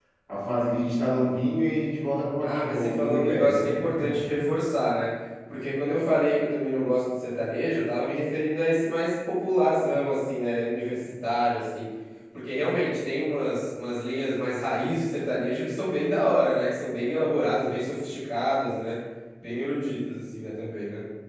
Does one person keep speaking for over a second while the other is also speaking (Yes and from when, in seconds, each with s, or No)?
Yes, from 2.4 s